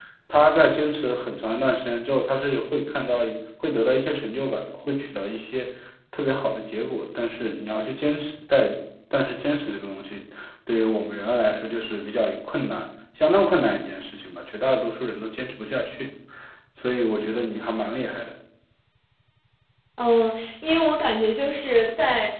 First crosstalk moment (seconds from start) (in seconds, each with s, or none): none